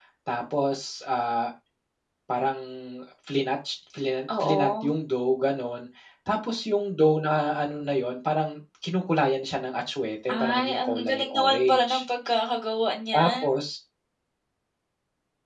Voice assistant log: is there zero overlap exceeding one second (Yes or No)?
No